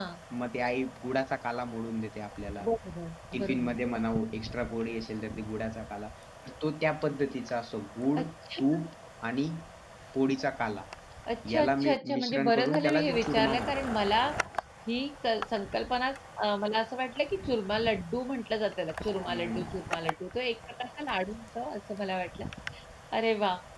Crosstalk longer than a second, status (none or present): present